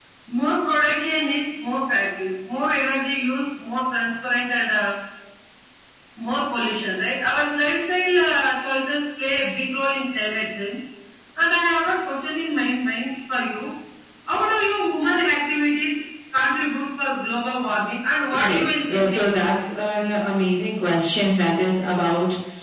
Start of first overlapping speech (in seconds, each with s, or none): 18.3 s